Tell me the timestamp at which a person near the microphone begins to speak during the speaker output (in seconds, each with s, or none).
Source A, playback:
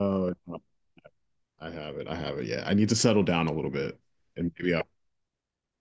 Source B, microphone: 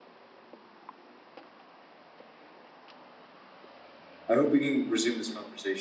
4.3 s